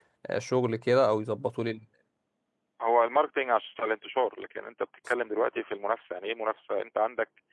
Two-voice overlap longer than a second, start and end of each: none

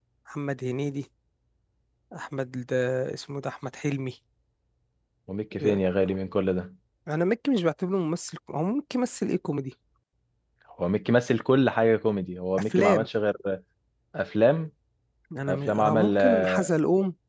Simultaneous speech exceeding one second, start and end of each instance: 15.5-16.7

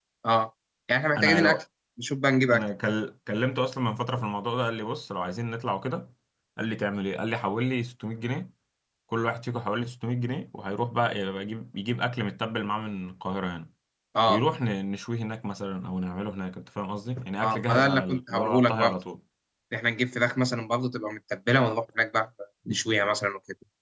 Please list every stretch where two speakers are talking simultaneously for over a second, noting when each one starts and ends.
17.4-18.9

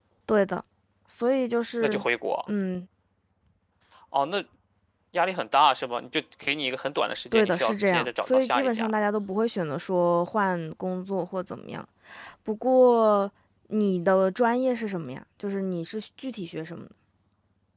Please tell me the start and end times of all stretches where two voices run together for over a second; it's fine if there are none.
7.3-8.9

